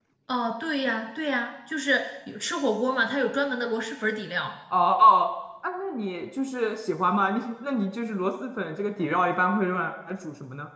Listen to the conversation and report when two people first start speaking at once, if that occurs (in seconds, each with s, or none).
none